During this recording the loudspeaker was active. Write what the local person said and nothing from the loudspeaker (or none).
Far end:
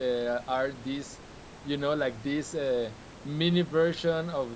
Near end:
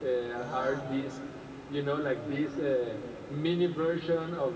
Ah, yes,